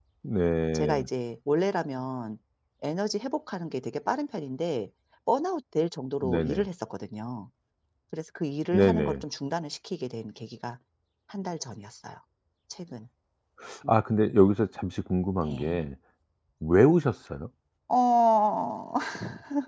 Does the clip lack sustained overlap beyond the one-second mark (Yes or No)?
Yes